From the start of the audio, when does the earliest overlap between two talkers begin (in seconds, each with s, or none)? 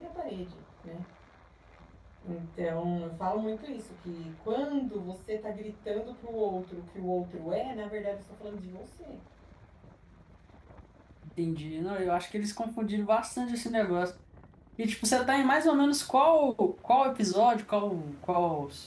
none